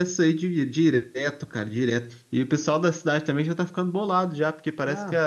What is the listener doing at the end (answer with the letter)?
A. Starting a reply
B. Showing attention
B